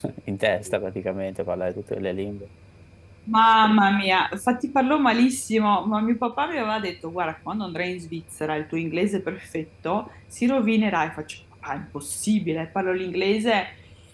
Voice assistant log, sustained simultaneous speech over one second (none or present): none